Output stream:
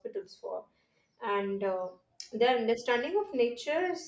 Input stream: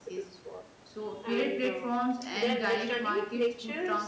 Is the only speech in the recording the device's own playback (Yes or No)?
No